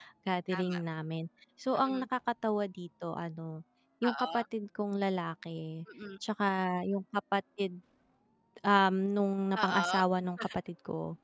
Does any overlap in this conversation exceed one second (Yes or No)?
No